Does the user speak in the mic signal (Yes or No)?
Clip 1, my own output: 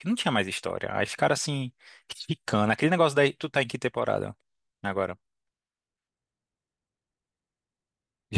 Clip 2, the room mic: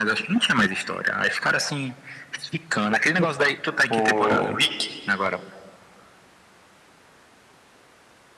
Yes